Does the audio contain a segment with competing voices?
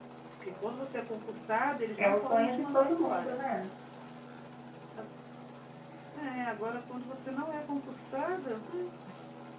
Yes, from 2.0 s

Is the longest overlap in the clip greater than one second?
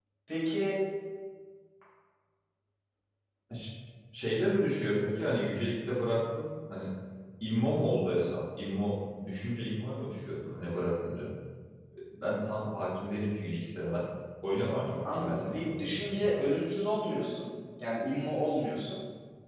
Yes, from 15.1 s

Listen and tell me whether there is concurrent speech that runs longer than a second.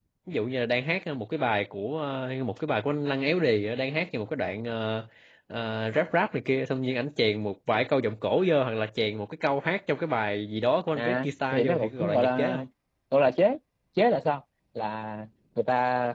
Yes, from 10.9 s

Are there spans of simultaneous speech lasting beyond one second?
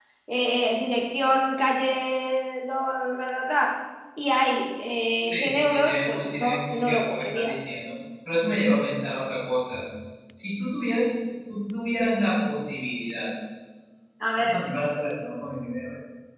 Yes, from 5.3 s

